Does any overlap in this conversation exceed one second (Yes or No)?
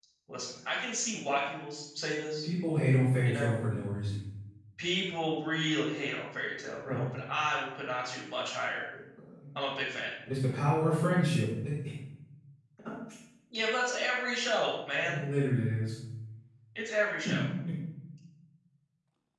No